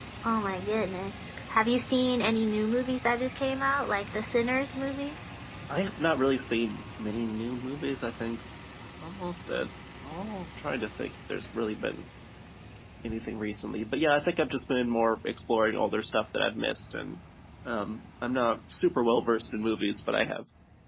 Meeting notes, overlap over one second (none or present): none